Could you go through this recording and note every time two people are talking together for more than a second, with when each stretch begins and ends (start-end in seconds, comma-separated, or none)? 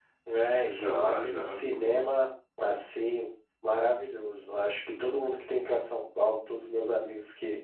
0.6-2.1